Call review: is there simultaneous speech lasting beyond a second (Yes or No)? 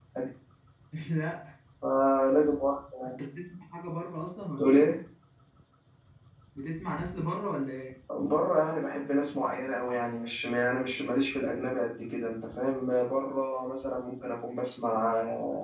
No